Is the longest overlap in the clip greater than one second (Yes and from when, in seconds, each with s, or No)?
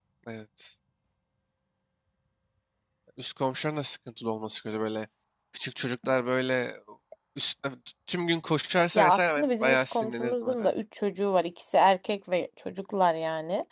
Yes, from 9.0 s